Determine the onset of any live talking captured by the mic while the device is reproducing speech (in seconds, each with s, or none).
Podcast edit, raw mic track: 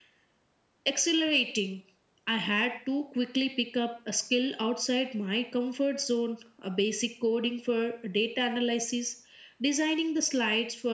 none